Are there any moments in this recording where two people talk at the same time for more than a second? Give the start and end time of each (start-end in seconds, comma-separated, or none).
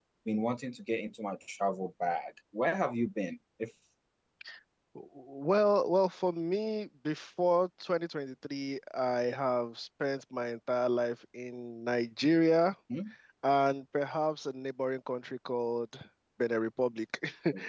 none